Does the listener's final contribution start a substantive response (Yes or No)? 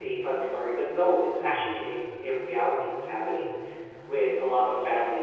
No